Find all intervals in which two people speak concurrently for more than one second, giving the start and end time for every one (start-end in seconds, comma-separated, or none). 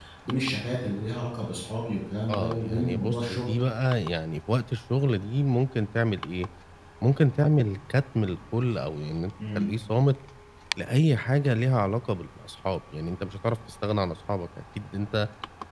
2.3-3.6